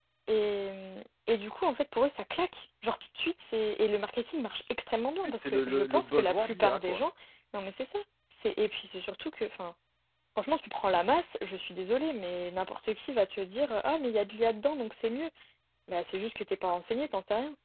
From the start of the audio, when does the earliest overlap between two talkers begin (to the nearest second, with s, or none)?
5 s